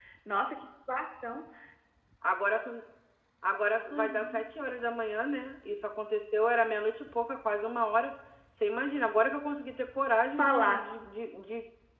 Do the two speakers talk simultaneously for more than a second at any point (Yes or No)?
No